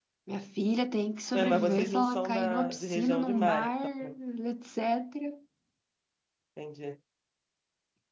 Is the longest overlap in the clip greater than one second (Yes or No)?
Yes